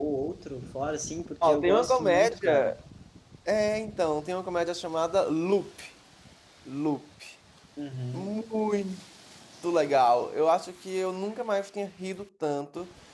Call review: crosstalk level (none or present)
present